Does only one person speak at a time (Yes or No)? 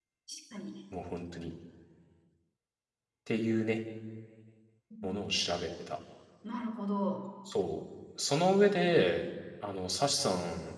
Yes